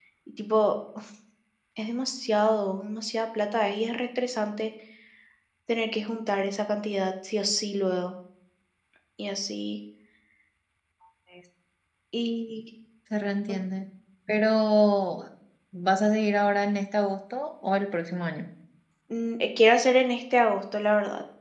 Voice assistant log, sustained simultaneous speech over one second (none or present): none